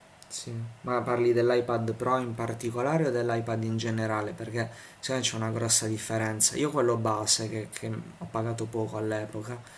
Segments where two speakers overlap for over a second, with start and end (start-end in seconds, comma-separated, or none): none